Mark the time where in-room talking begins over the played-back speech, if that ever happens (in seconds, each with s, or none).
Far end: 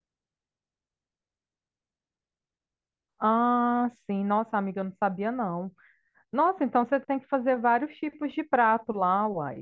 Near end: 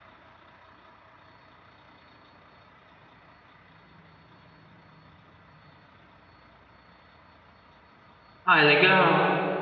8.4 s